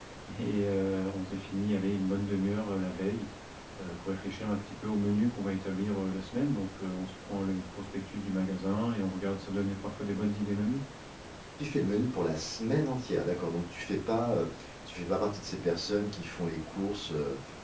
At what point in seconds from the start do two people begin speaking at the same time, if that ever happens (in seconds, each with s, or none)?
none